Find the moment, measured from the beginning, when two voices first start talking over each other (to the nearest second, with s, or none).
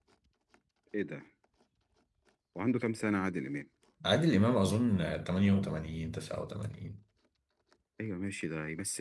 none